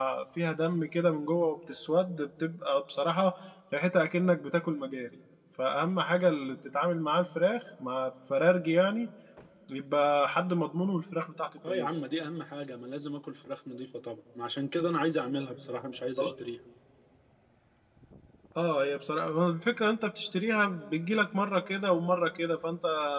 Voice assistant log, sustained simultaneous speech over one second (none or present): none